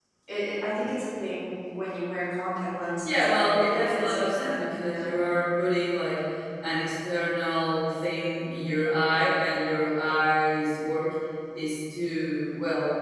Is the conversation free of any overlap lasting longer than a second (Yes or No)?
No